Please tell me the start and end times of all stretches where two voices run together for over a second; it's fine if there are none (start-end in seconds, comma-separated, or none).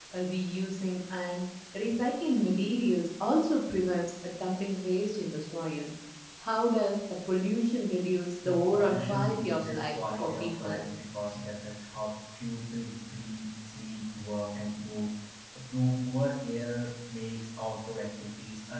8.4-10.8